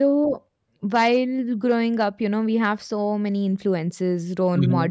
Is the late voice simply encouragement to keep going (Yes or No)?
Yes